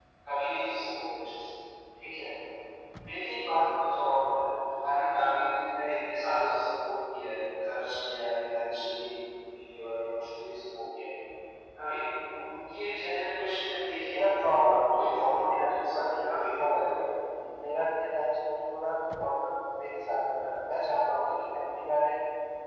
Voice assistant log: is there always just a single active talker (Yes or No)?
No